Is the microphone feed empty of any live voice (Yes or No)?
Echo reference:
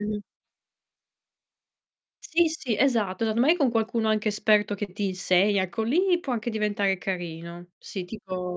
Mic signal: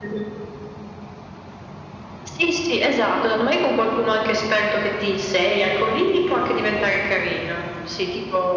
Yes